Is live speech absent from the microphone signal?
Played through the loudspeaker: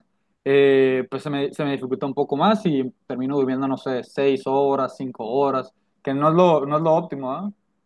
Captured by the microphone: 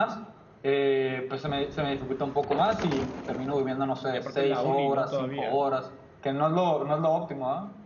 No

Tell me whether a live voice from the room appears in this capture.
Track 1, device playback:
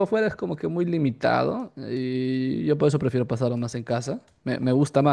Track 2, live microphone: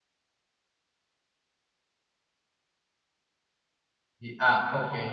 Yes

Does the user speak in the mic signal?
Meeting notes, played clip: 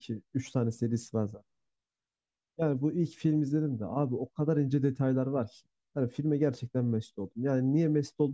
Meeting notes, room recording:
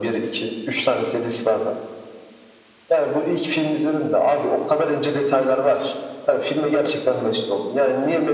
No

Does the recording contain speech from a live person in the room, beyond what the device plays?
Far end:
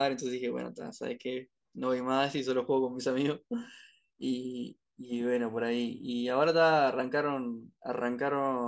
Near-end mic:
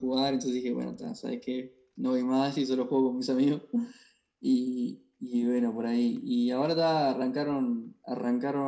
No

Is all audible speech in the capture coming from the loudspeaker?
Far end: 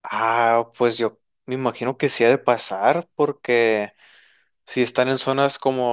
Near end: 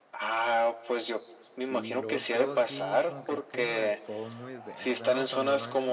No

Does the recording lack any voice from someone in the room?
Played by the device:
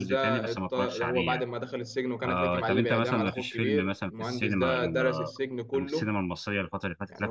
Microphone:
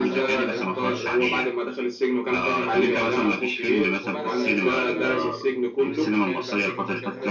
No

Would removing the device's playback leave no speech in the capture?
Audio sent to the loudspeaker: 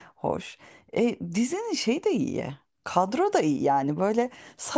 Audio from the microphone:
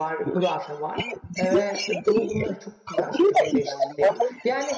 No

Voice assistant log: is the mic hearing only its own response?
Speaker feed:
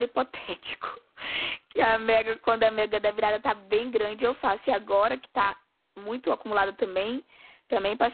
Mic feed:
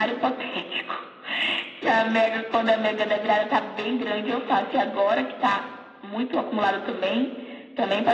Yes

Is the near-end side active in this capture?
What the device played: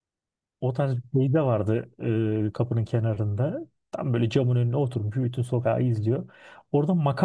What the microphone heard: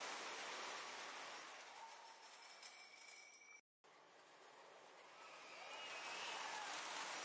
No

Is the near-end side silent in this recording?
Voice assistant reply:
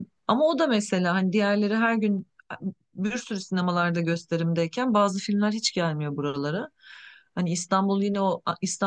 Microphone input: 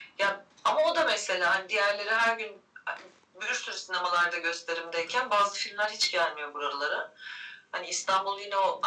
Yes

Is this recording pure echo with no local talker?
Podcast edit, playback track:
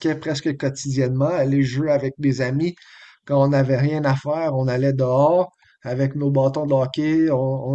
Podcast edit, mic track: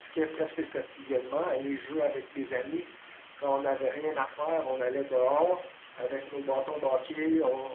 Yes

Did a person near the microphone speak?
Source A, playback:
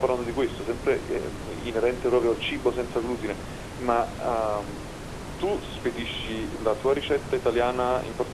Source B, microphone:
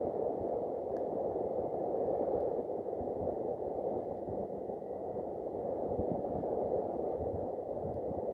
No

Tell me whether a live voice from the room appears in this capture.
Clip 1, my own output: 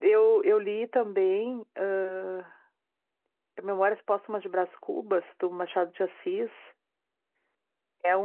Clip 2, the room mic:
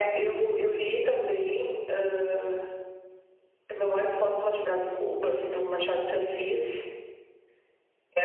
No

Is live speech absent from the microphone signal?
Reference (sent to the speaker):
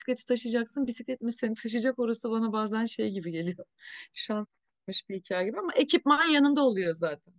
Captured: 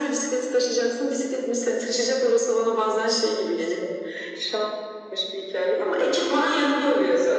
Yes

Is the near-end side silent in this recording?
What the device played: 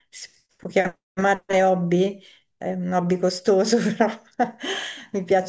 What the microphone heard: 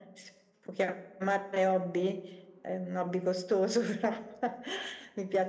Yes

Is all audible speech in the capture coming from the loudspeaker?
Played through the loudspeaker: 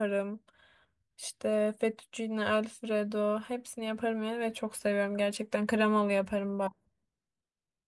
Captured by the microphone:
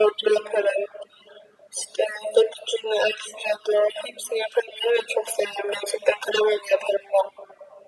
Yes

